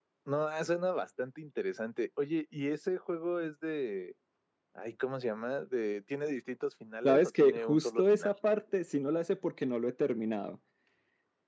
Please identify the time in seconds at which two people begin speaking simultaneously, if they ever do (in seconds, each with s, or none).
7.0 s